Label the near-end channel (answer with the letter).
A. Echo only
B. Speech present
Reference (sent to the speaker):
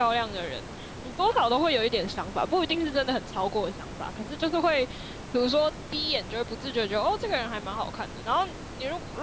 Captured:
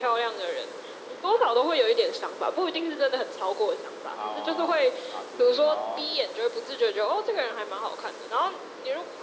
B